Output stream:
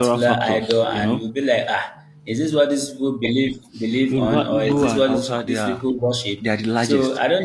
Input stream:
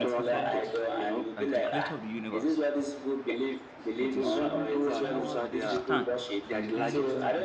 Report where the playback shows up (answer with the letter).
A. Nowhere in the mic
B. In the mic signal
B